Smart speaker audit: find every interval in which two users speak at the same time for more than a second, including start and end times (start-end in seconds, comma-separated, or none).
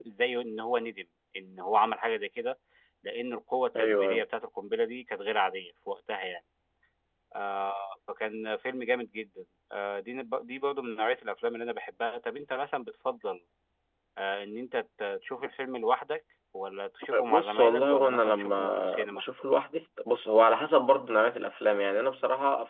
17.3-19.2